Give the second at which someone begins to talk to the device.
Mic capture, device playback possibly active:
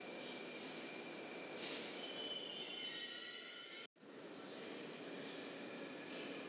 none

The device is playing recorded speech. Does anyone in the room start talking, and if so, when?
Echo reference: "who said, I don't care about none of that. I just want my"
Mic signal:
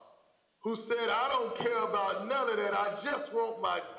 none

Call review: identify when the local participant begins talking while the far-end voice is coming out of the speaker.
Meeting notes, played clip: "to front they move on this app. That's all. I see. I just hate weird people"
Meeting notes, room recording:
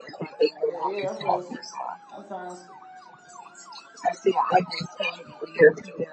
0.7 s

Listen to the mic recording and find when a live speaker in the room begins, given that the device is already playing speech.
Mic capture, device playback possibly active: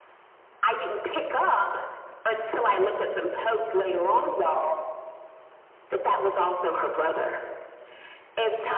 none

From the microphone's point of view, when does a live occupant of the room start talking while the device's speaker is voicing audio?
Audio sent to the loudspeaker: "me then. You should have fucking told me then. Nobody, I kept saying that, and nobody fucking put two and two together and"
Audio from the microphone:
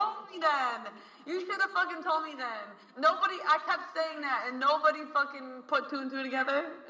none

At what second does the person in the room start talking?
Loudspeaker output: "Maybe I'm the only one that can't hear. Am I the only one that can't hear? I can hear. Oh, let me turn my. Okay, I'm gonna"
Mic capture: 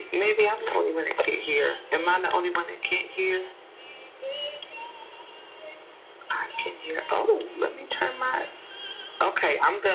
none

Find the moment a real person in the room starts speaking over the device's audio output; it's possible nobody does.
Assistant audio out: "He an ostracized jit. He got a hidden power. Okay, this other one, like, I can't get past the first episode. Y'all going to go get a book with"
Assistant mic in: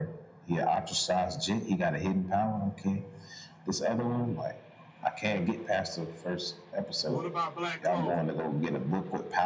7.1 s

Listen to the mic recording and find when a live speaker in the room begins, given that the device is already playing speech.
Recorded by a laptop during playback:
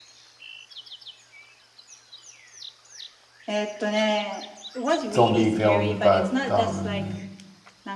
5.1 s

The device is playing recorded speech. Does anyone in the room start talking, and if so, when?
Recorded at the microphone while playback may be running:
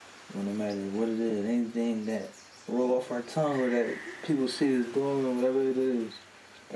none

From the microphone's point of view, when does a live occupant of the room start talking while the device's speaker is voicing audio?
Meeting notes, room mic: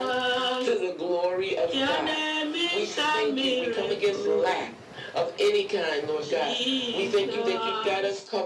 none

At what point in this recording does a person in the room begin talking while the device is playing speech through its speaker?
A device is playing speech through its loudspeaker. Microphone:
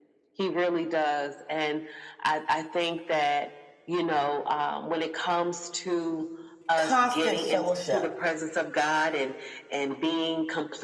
6.8 s

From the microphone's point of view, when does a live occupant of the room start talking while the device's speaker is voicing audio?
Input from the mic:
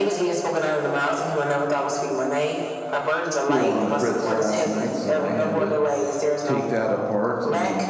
3.4 s

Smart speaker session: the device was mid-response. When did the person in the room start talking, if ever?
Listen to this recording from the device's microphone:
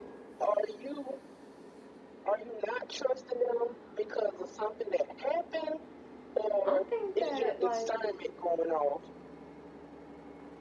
6.6 s

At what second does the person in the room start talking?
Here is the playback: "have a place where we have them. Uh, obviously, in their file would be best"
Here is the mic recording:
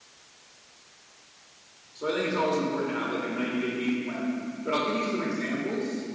1.9 s

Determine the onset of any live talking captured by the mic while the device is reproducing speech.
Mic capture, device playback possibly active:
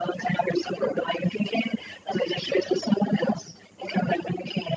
none

